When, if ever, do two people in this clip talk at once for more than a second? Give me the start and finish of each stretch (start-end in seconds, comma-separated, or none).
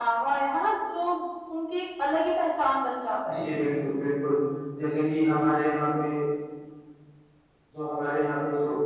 none